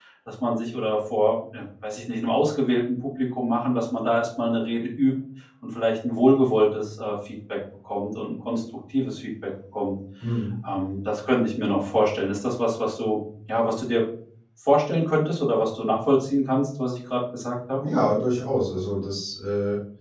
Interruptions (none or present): none